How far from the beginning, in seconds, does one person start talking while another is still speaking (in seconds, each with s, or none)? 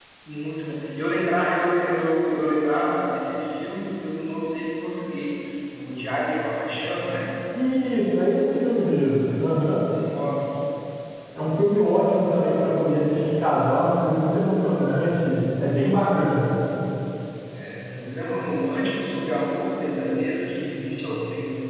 none